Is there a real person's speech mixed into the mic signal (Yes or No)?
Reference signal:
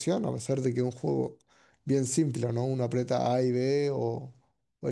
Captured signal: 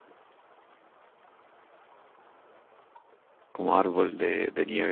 Yes